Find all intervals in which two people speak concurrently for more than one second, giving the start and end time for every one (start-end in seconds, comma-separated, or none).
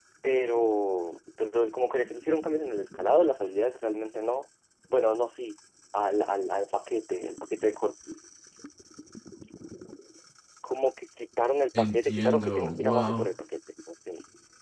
11.8-13.3